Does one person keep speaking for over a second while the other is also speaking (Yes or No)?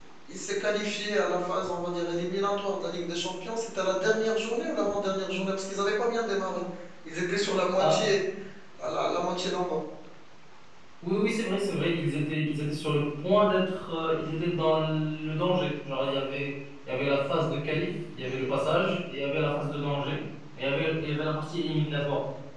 No